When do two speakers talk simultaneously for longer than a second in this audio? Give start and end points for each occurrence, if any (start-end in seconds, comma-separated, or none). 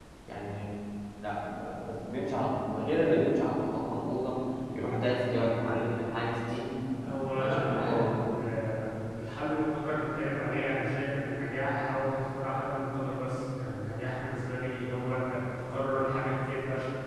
7.0-8.3